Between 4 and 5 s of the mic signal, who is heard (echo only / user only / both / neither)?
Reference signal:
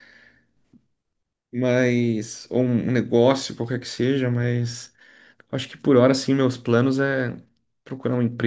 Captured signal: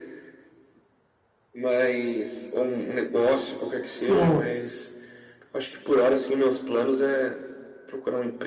both